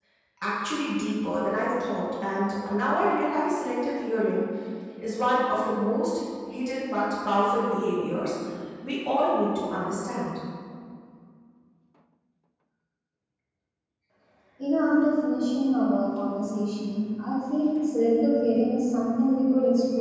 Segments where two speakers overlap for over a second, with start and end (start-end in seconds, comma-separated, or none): none